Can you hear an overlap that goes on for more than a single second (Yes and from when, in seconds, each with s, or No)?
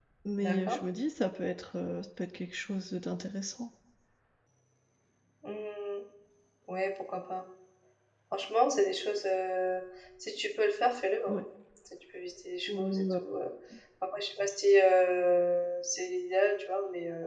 No